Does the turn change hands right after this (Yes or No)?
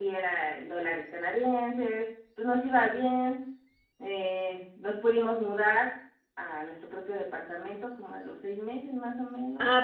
Yes